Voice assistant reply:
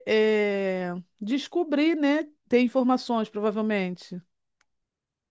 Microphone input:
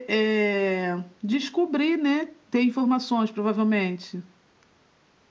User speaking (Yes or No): No